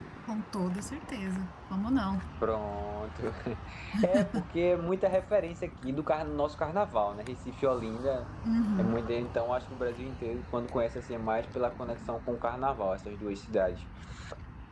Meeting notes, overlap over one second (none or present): none